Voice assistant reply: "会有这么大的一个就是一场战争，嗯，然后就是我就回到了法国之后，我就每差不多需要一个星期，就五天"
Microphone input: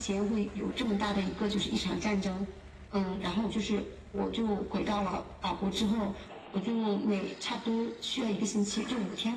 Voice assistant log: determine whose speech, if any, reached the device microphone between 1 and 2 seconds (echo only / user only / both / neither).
echo only